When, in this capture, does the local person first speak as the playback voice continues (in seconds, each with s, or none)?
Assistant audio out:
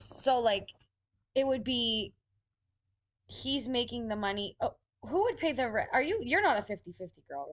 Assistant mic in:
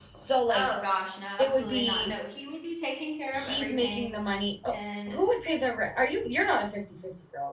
0.5 s